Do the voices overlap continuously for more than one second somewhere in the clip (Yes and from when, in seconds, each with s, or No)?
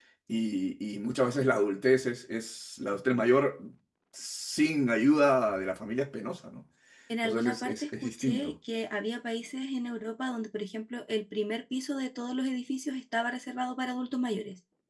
Yes, from 7.2 s